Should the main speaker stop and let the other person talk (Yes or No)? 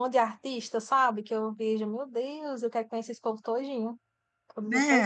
Yes